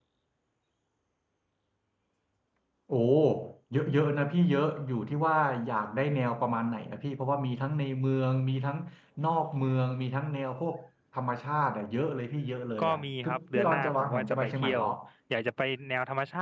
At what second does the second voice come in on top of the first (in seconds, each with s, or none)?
12.8 s